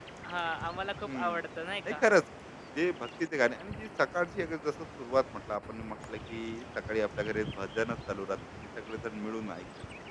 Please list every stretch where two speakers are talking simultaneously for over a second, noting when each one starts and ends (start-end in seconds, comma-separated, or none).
none